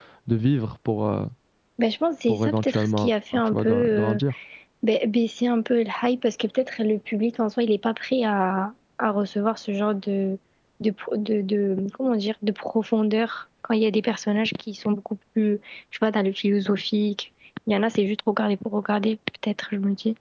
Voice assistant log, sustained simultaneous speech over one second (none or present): present